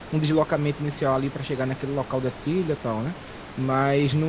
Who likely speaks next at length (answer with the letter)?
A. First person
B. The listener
A